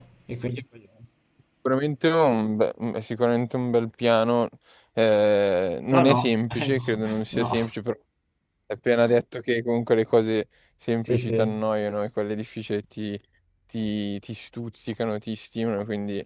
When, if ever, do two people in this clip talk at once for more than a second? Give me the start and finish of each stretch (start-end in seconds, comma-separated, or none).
5.9-7.6